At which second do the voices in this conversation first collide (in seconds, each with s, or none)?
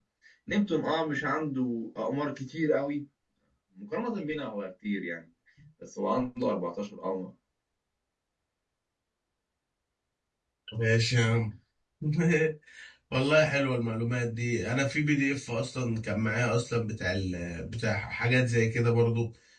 none